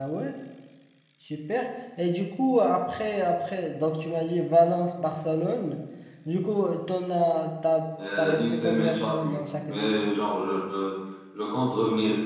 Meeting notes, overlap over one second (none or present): present